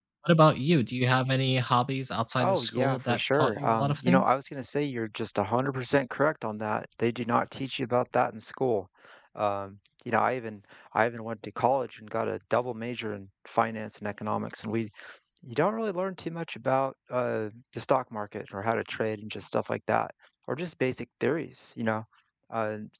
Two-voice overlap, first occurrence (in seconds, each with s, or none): 2.4 s